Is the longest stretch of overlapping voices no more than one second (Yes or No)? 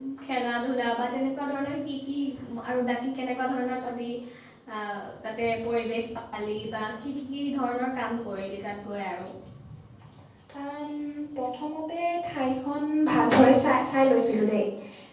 Yes